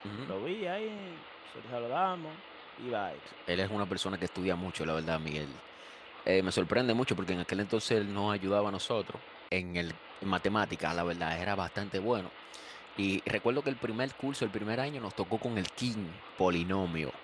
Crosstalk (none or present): none